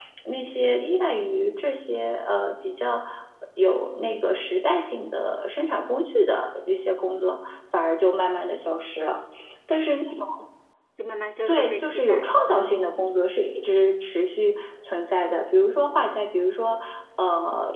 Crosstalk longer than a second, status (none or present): present